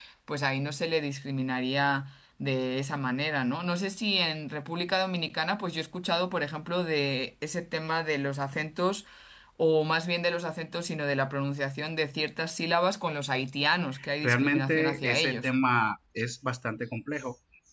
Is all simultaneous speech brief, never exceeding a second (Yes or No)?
No